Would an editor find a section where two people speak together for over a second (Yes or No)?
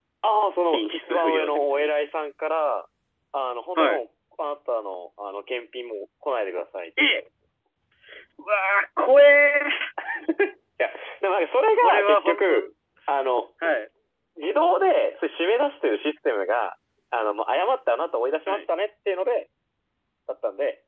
Yes